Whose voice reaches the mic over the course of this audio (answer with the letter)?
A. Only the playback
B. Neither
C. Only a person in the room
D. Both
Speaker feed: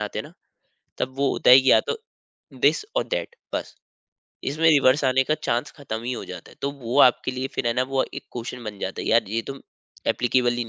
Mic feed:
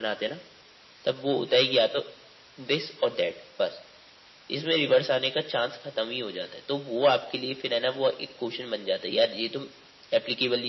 A